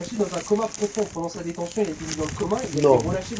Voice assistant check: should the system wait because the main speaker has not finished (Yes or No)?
Yes